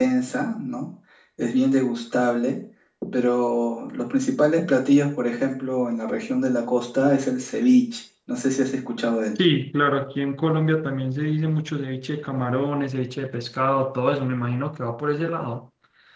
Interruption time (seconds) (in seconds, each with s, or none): none